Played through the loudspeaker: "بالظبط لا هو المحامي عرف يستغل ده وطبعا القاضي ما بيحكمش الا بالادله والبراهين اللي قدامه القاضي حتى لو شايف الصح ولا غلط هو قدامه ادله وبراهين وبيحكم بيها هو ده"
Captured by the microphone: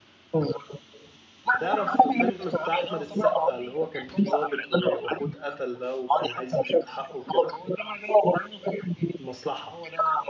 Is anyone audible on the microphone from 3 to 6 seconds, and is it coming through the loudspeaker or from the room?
both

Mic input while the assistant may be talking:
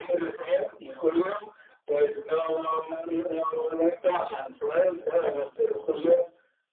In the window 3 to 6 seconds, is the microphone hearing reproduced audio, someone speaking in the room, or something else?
echo only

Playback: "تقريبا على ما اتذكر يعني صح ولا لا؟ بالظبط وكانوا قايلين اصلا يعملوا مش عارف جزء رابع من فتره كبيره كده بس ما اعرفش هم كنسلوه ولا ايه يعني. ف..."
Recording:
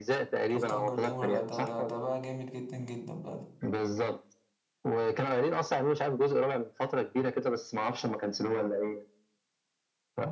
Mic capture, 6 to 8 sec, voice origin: echo only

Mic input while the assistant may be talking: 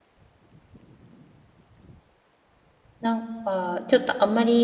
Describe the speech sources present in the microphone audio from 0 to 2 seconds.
neither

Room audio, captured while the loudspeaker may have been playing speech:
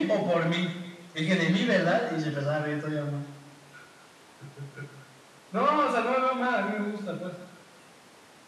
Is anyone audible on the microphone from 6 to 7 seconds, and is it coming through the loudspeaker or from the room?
echo only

